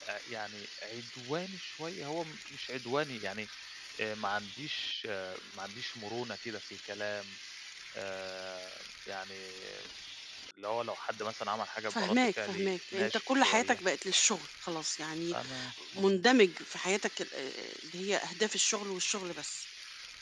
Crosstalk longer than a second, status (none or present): present